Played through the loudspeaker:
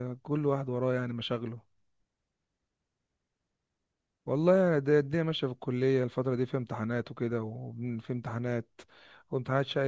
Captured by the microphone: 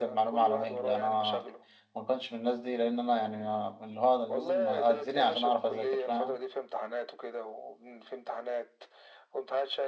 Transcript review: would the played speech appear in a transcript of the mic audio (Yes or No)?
Yes